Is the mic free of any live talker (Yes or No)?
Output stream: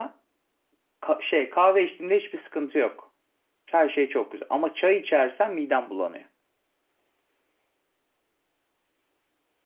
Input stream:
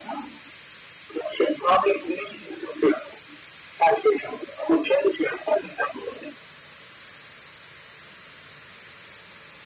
Yes